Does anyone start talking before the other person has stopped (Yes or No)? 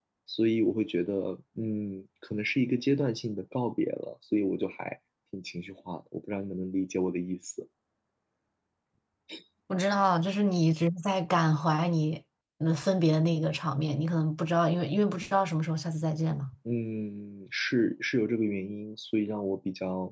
No